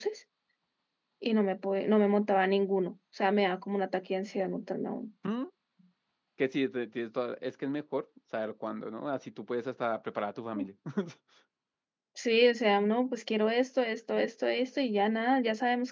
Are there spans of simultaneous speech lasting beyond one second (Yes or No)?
No